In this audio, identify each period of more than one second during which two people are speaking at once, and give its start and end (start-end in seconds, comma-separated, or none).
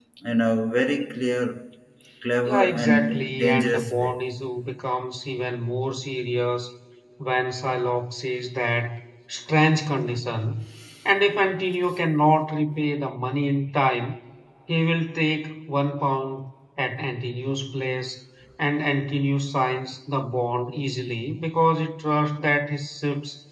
2.4-4.1